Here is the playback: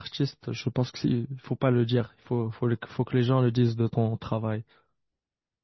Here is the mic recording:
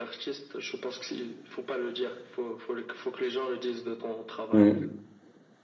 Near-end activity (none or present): present